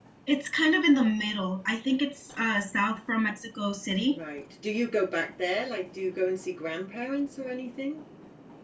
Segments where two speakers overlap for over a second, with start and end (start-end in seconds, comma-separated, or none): none